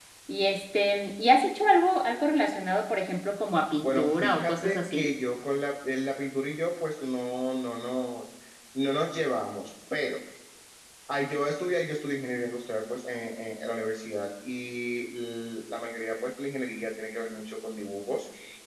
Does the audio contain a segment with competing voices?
Yes, from 3.8 s

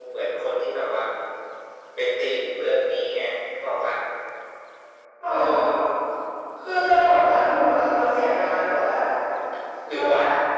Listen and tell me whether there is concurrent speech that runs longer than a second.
No

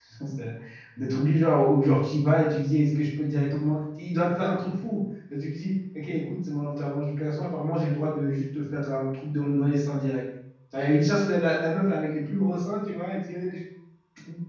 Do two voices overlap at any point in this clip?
No

